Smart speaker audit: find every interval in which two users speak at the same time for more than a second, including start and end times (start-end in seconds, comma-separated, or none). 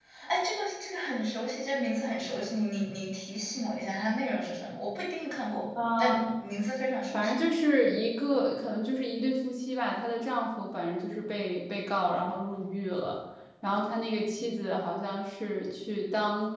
none